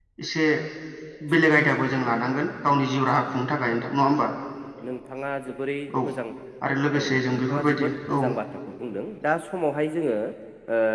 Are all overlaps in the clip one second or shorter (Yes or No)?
No